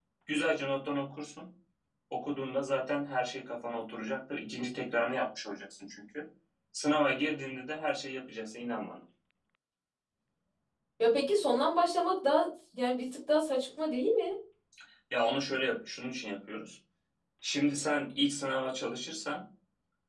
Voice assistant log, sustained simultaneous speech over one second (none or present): none